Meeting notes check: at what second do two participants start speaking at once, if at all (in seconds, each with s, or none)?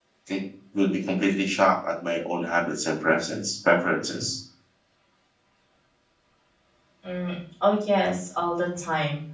none